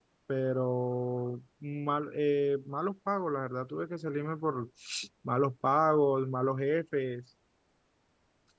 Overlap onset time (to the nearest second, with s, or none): none